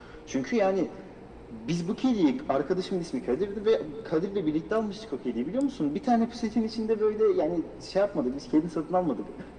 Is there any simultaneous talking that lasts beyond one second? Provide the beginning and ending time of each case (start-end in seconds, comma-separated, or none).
none